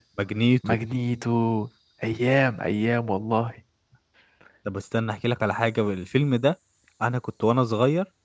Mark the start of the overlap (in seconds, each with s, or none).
none